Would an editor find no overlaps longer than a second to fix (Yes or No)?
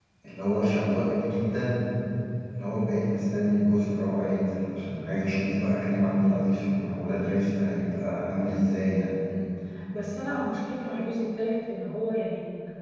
Yes